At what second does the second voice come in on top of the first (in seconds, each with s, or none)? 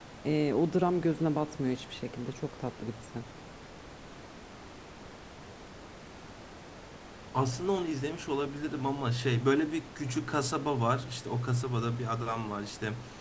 none